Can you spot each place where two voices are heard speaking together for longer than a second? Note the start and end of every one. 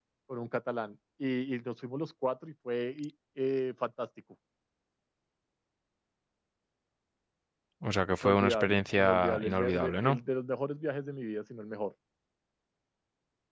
8.2-10.2

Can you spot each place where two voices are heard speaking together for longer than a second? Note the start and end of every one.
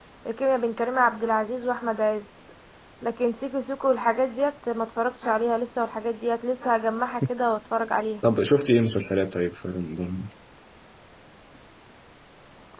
none

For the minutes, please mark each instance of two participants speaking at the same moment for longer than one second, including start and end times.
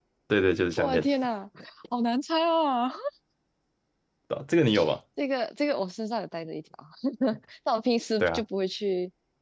none

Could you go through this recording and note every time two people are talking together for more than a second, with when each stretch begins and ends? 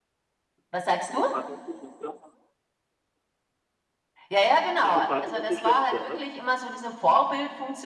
4.8-6.3

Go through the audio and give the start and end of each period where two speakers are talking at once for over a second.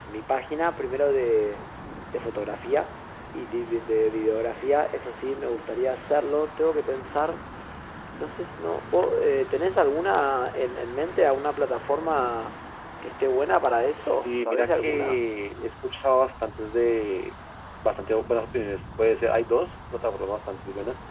14.0-15.2

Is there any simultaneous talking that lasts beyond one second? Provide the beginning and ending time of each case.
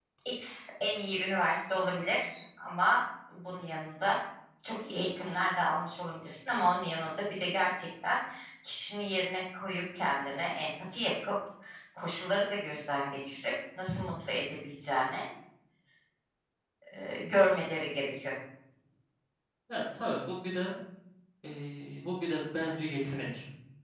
none

